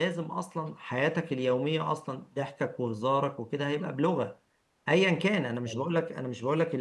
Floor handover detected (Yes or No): No